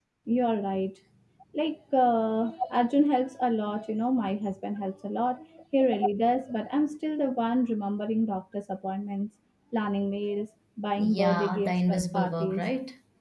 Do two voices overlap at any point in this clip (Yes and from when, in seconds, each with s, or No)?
Yes, from 11.0 s